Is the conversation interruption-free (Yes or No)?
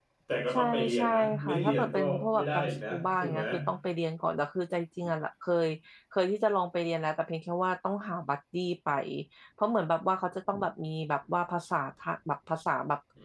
No